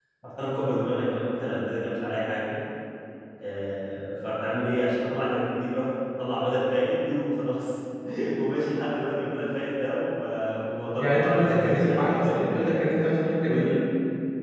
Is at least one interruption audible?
Yes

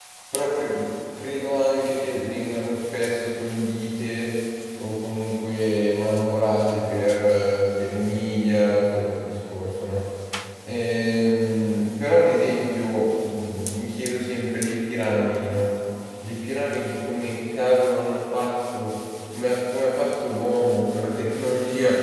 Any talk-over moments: No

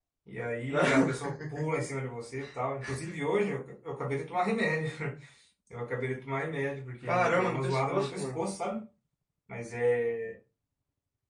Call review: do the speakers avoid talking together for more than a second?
No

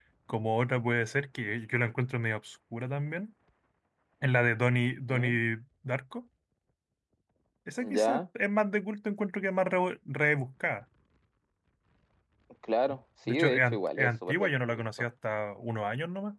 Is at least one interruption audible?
Yes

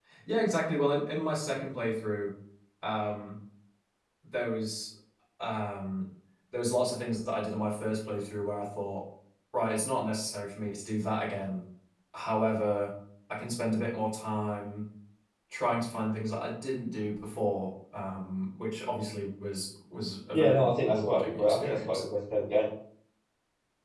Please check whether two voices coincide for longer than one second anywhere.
Yes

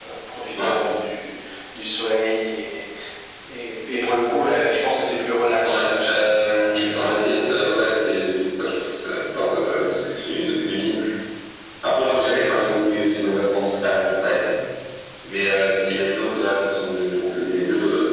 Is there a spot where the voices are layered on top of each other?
Yes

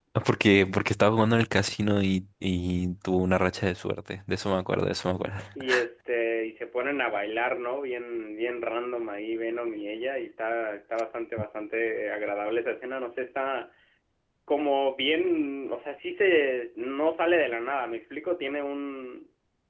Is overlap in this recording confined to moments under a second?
Yes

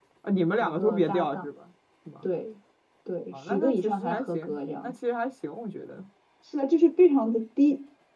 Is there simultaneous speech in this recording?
Yes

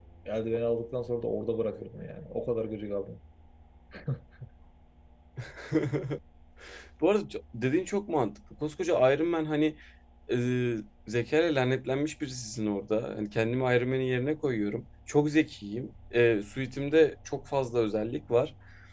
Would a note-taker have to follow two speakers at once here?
No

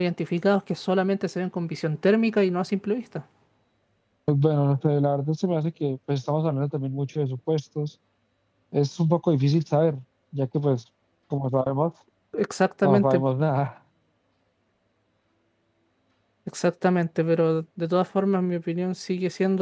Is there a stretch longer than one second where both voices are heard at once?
No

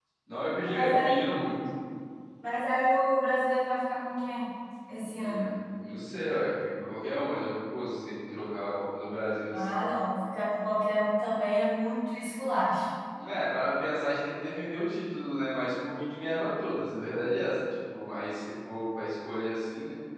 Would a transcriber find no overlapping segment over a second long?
Yes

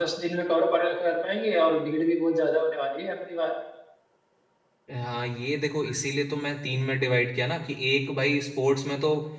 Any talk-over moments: No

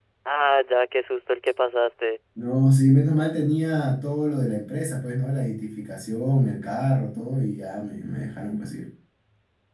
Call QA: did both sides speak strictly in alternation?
Yes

